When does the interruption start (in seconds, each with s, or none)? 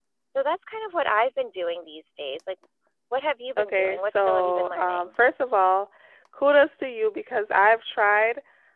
3.6 s